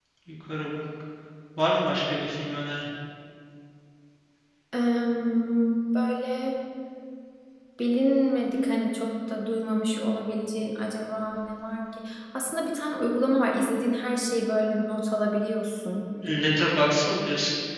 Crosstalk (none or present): none